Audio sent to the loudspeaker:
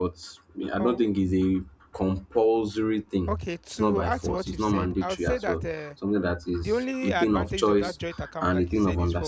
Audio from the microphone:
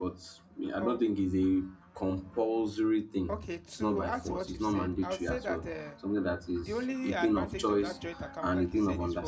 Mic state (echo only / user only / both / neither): echo only